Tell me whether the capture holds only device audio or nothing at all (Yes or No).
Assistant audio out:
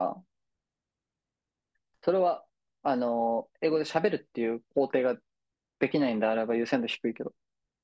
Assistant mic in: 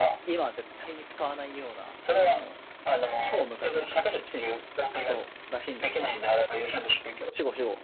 No